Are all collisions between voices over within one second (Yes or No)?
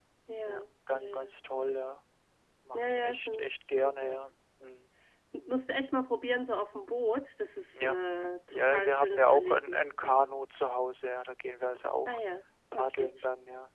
No